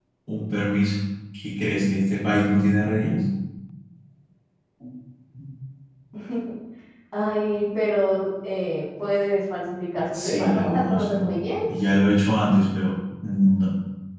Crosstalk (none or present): present